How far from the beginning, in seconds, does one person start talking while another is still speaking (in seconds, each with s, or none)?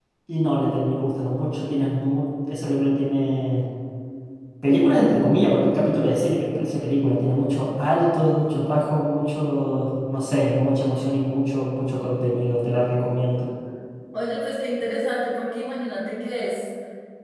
none